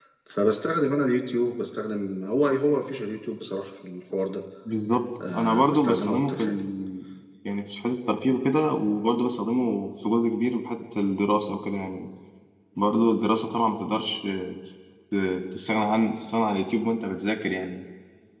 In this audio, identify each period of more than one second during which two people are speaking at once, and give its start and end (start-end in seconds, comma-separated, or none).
5.3-6.5